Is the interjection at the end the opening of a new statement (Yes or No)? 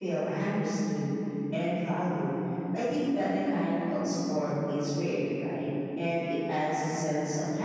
No